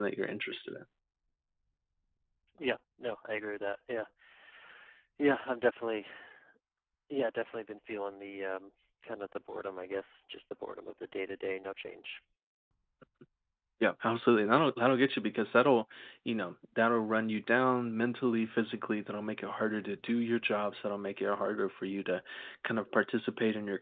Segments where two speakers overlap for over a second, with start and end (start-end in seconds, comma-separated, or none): none